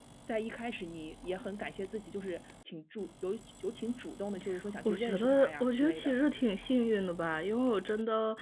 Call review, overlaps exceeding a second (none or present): present